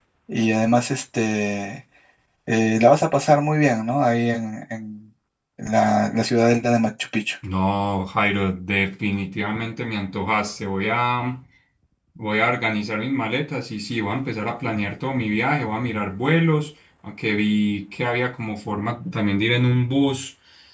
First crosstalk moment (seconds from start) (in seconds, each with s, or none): none